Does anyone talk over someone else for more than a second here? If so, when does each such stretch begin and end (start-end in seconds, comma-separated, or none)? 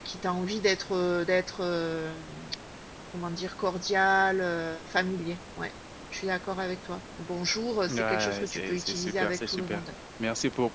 7.9-9.8